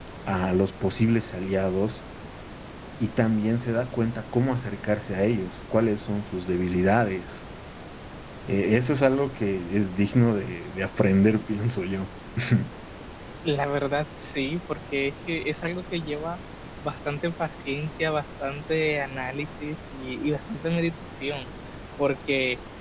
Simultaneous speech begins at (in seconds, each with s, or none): none